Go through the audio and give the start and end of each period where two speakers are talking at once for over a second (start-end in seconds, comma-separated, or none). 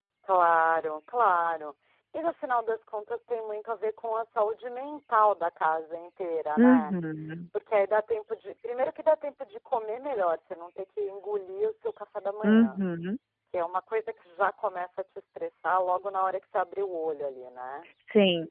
none